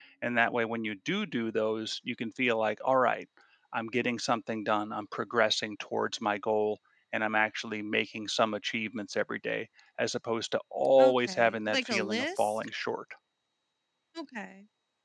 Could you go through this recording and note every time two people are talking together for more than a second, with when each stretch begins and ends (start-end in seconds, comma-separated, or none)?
11.0-12.6